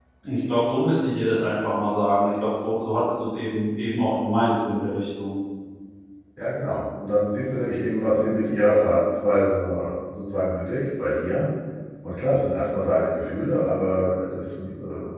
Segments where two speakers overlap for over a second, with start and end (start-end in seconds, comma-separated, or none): none